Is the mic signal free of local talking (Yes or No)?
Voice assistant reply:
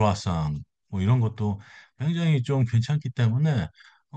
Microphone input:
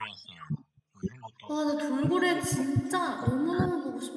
No